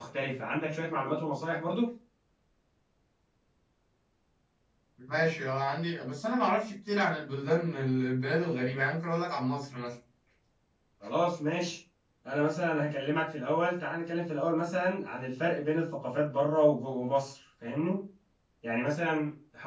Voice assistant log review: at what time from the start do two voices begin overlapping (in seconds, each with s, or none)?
none